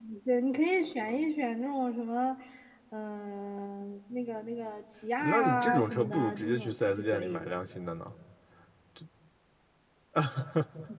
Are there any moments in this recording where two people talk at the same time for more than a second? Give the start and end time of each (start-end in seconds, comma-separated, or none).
5.2-7.5